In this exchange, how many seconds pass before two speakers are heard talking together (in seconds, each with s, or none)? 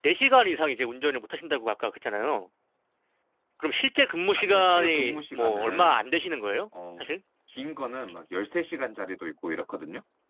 4.4 s